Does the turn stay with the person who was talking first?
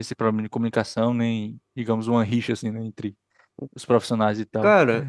No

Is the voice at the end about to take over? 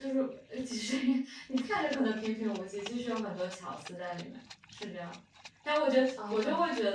No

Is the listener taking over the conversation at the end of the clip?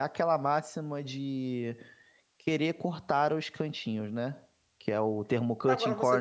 Yes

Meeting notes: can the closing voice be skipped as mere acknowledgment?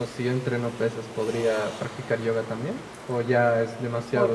No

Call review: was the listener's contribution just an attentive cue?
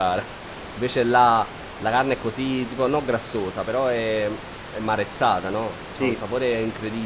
Yes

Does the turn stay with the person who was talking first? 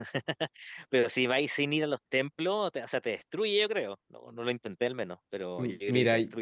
No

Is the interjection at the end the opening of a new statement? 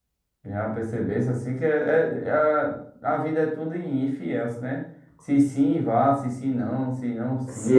Yes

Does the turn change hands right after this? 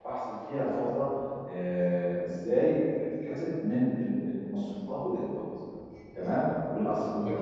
No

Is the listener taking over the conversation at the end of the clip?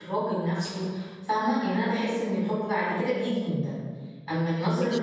Yes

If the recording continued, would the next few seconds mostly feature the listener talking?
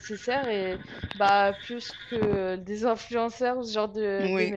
Yes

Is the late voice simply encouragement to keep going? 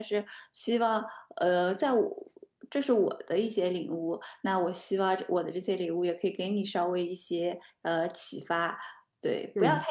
Yes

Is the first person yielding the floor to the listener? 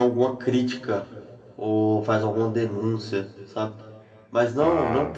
No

